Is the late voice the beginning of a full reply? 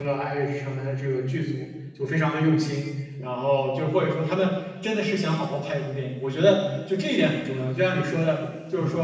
No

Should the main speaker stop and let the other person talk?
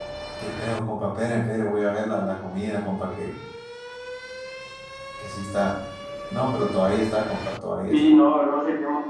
Yes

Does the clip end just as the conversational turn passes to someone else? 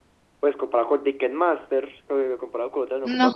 No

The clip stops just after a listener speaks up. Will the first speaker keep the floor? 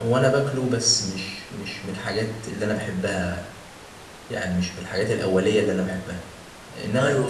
Yes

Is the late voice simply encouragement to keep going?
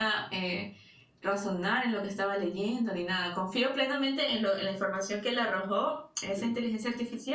Yes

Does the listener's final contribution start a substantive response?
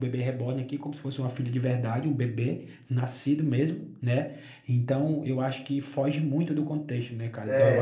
Yes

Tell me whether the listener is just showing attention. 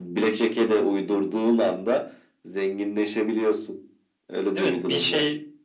No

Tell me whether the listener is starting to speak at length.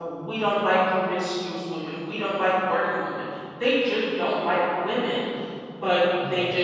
No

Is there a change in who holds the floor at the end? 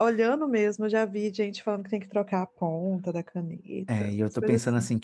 Yes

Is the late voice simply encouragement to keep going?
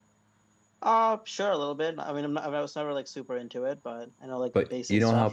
No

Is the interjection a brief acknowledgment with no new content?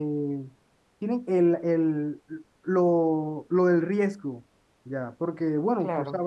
Yes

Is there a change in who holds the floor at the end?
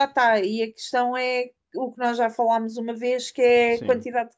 No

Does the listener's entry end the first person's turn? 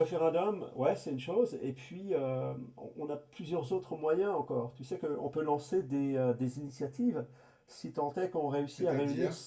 No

